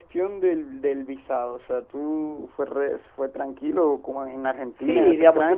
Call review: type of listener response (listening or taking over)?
taking over